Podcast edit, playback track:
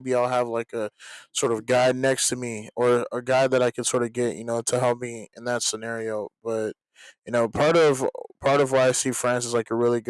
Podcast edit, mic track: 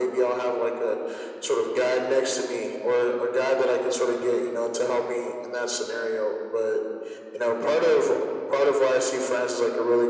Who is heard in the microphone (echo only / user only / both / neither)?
echo only